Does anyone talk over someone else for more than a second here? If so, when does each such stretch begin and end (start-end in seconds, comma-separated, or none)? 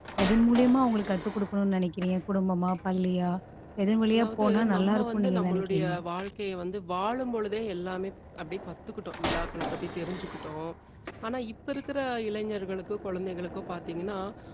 4.1-5.9